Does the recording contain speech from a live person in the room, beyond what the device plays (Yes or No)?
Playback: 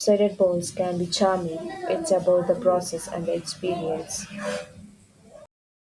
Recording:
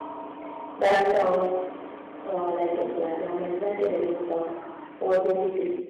Yes